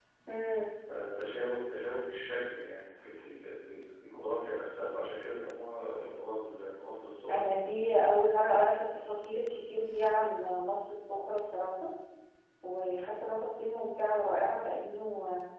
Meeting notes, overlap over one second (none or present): none